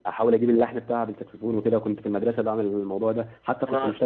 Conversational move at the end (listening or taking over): listening